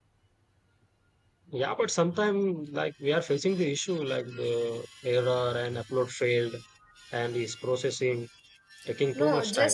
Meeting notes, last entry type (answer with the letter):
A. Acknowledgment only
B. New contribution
B